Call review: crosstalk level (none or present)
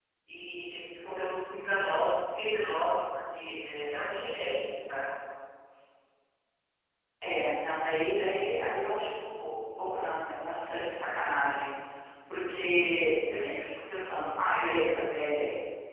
none